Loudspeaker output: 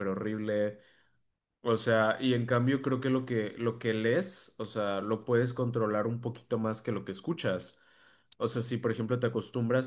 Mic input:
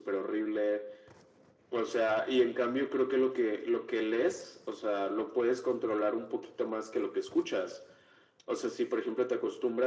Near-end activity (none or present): none